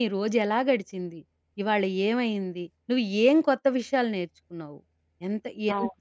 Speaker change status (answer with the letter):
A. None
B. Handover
A